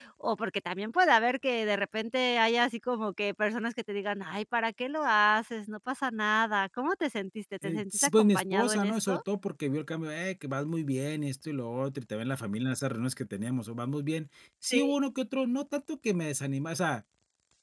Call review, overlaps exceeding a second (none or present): present